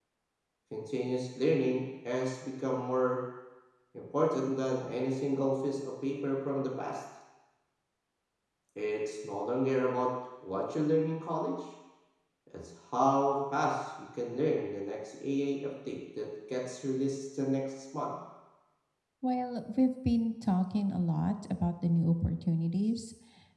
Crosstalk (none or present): none